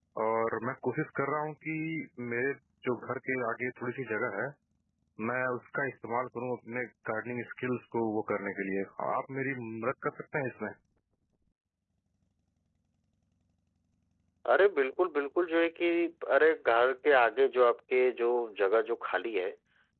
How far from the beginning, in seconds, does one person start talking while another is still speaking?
none

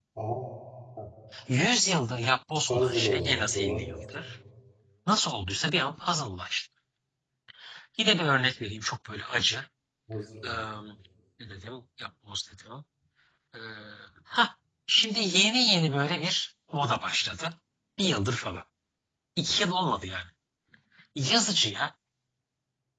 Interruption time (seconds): 2.7 s

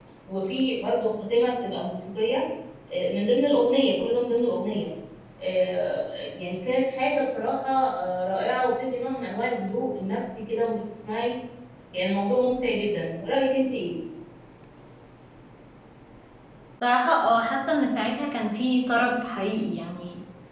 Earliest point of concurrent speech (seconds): none

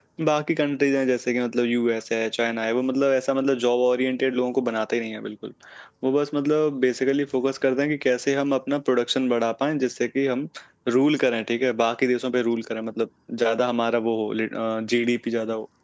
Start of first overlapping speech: none

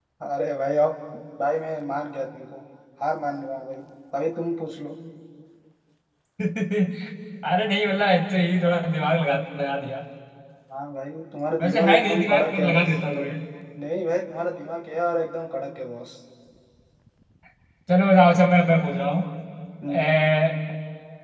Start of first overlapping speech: 11.6 s

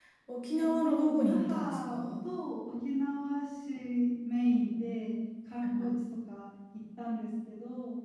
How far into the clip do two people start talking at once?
0.6 s

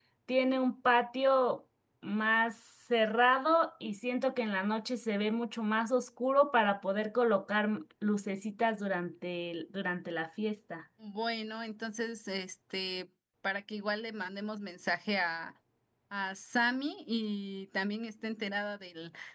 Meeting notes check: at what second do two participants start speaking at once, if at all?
none

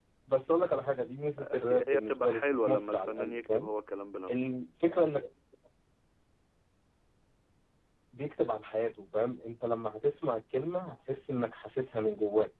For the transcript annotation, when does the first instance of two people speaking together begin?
1.4 s

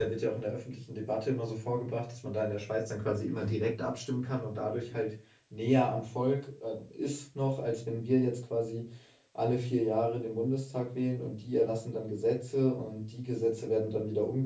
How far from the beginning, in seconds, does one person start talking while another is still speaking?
none

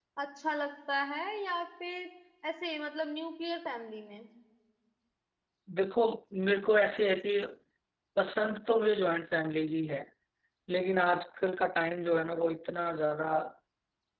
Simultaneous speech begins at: none

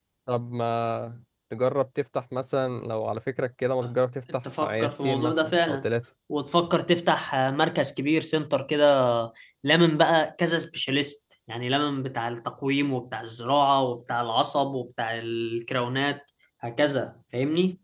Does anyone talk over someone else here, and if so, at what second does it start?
4.5 s

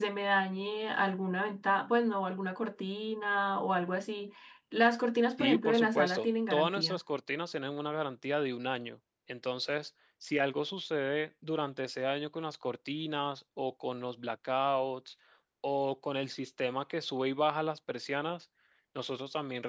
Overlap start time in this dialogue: 5.4 s

